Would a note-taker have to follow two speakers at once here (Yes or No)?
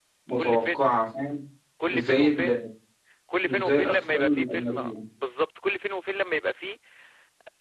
Yes